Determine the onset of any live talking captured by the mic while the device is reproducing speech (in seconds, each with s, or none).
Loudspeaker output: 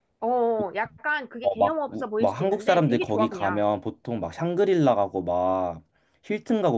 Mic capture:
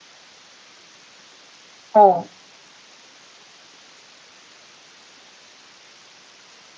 1.9 s